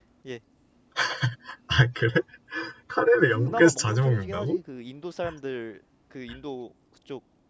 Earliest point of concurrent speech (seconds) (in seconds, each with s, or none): 3.3 s